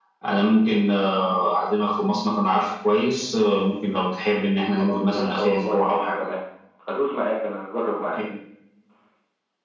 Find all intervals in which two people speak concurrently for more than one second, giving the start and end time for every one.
4.8-6.2

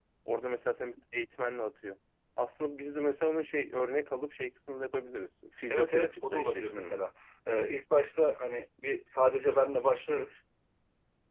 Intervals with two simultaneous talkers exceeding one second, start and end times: 5.7-7.0

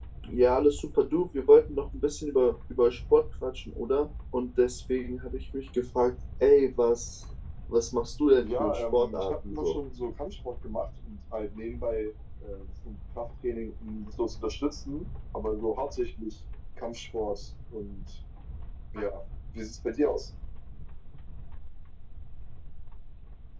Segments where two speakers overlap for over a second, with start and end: 8.4-9.8

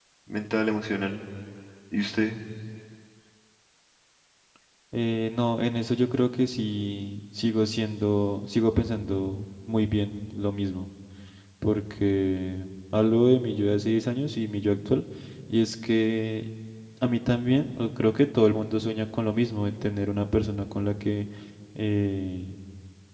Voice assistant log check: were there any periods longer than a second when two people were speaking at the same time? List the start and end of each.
none

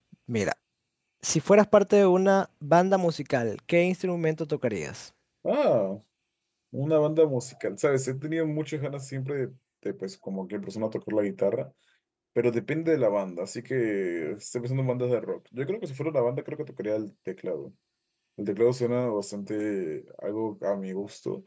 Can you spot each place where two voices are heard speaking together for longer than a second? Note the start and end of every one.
none

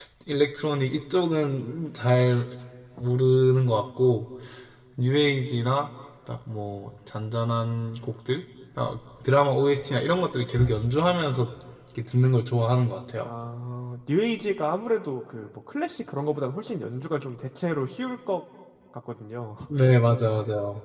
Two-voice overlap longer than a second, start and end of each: none

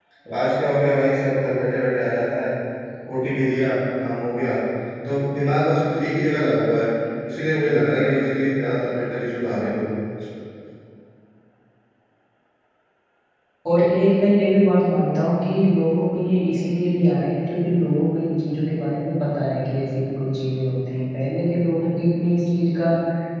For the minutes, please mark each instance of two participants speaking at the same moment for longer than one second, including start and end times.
none

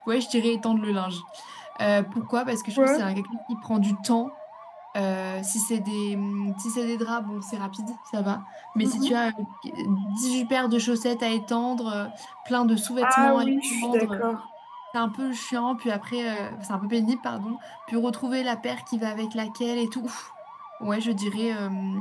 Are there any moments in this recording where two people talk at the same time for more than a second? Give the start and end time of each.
13.0-14.2

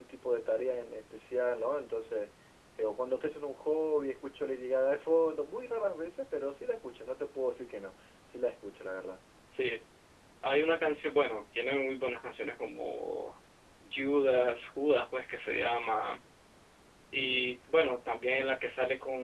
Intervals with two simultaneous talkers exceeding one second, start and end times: none

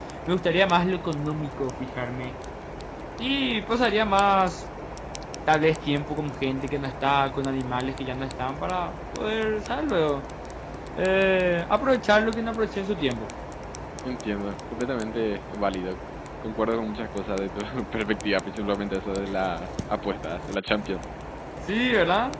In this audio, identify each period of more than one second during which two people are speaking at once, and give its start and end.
none

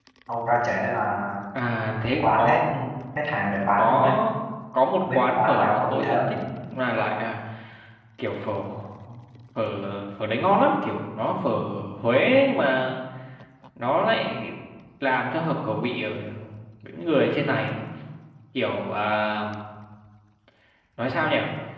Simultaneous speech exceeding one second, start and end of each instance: 5.1-6.4

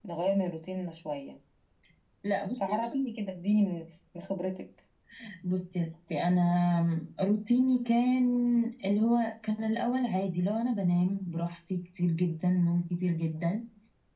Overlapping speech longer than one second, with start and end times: none

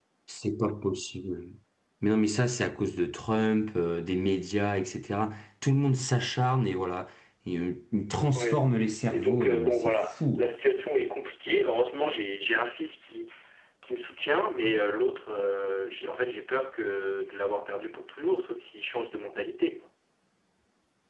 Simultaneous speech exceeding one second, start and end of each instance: 9.1-10.5

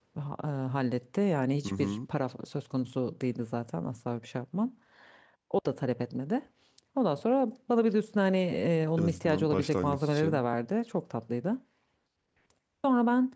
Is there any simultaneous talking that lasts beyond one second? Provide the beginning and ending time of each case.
9.0-10.4

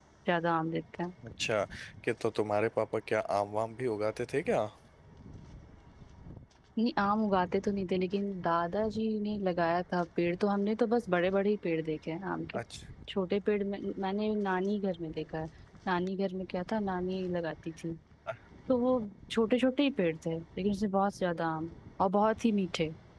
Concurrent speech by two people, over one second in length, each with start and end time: none

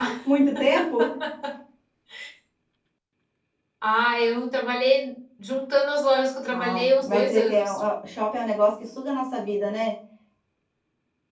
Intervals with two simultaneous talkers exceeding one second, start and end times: 6.5-7.8

